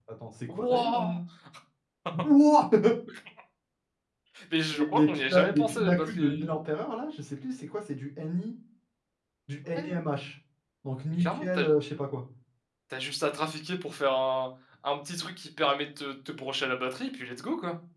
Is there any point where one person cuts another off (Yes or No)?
Yes